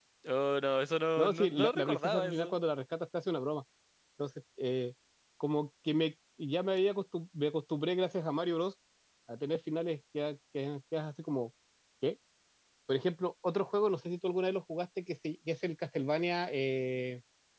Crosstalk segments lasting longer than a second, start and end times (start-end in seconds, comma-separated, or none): 1.2-2.5